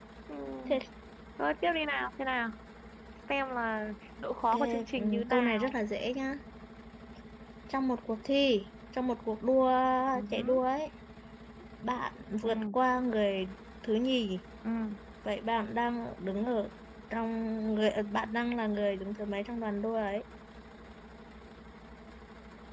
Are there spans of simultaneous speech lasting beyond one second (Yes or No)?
Yes